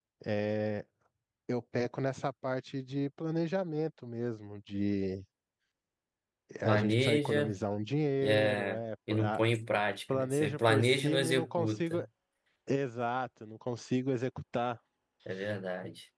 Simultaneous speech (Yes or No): Yes